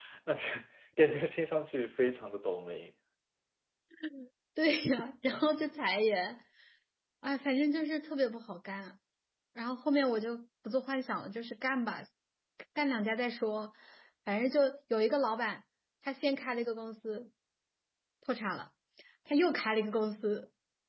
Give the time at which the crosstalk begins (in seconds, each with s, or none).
none